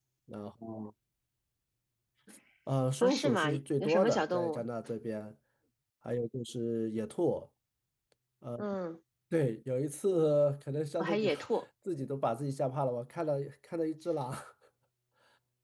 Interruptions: present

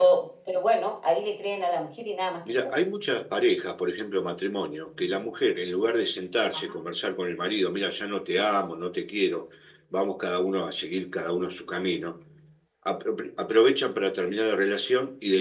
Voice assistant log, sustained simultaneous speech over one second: none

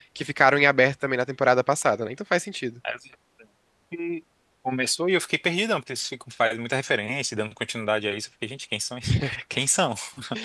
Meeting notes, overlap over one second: none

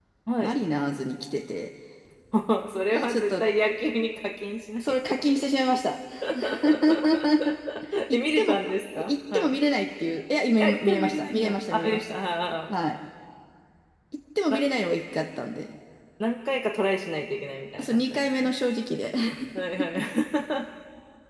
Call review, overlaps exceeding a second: present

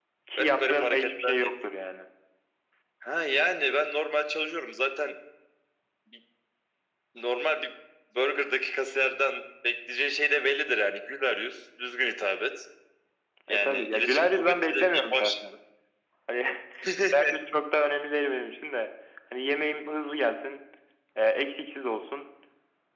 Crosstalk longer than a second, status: present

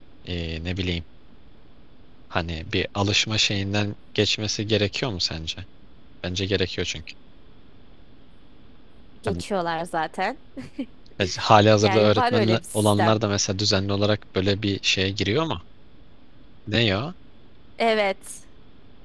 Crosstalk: present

